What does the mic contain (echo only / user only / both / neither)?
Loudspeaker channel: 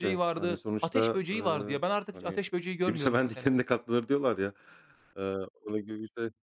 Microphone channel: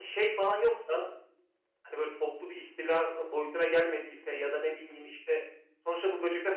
user only